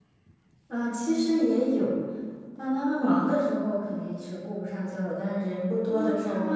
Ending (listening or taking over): taking over